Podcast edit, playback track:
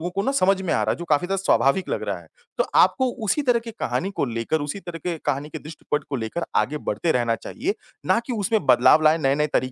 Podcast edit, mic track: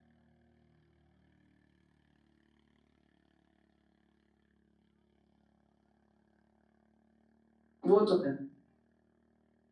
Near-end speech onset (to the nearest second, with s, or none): 8 s